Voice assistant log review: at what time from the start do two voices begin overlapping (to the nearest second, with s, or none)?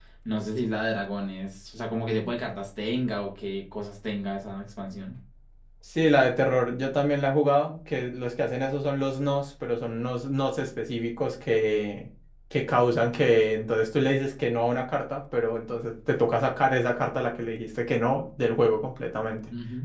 none